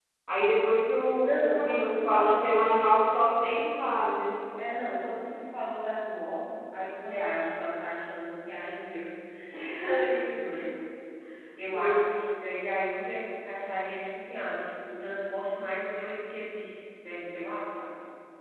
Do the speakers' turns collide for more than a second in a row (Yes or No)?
Yes